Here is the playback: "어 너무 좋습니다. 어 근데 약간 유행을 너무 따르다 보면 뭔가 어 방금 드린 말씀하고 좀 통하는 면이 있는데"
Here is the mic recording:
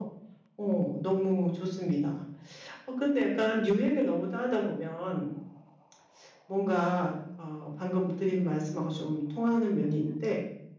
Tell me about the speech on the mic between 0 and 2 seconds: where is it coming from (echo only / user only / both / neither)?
echo only